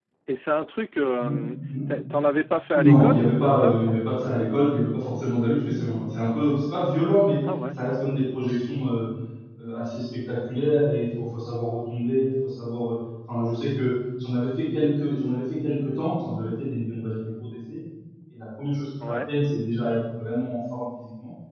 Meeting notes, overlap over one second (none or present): present